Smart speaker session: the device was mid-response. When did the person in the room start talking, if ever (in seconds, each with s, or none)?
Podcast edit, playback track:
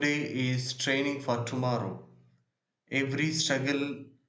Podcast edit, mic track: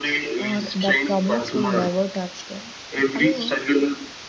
0.4 s